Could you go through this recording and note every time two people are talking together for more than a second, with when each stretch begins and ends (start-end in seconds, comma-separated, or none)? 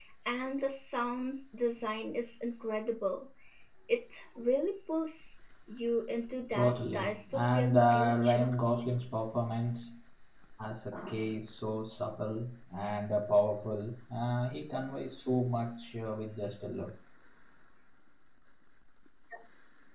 6.5-8.5